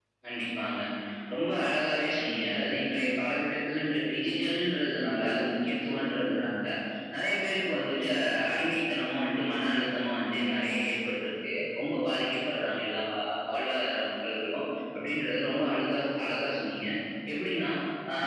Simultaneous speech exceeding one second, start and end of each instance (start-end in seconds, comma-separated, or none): none